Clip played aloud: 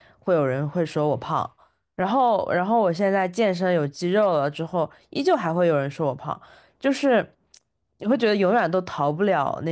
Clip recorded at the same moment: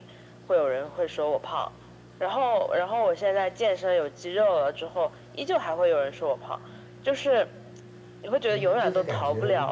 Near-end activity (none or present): present